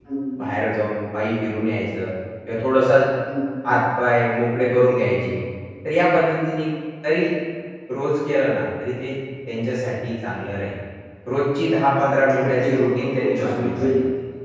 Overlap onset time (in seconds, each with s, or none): 12.4 s